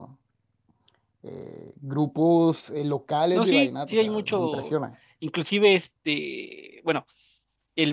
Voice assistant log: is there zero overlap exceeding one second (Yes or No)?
No